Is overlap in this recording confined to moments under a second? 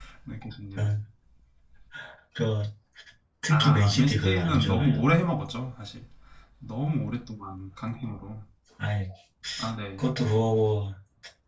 No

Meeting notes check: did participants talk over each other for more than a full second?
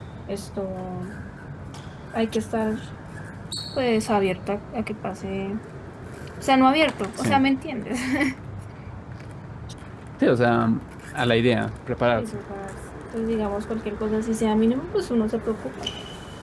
No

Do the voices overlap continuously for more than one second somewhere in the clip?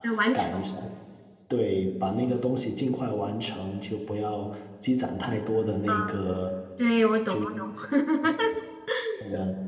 No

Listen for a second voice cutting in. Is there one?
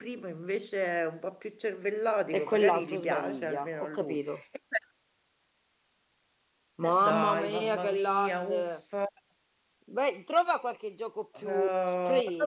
Yes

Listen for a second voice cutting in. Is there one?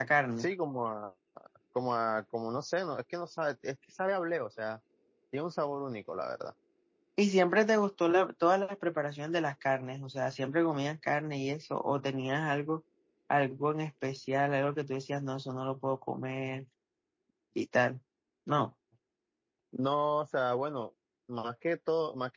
No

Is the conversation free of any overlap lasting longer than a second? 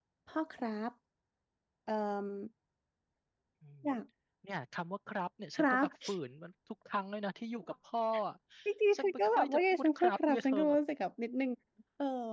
No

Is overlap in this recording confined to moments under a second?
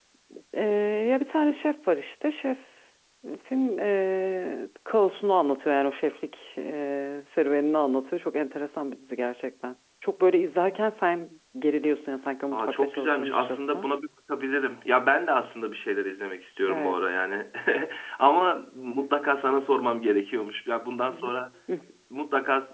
No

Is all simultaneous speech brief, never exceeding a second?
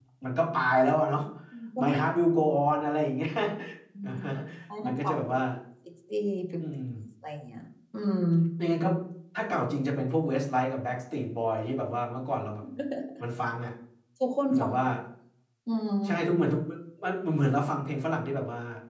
Yes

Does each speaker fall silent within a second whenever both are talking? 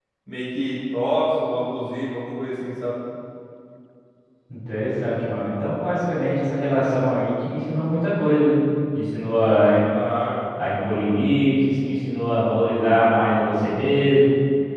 Yes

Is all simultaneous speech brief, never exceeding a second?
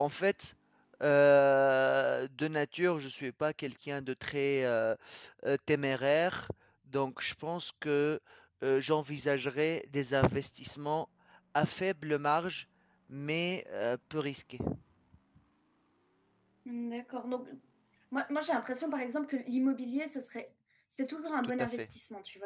Yes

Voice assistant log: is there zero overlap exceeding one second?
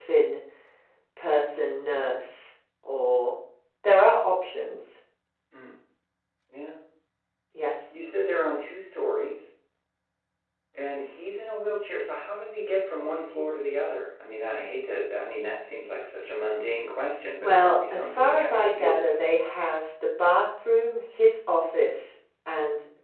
No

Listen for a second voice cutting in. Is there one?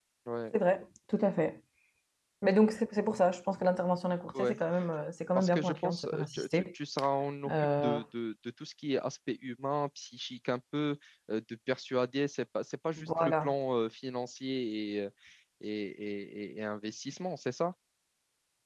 Yes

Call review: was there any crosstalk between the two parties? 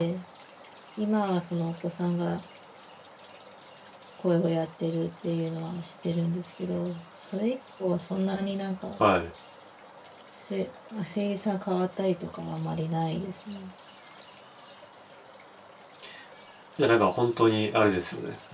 No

